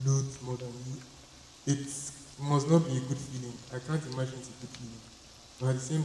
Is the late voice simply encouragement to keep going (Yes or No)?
Yes